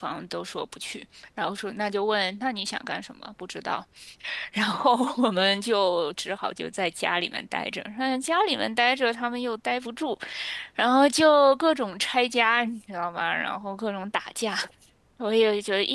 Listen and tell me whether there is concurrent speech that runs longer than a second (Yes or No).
No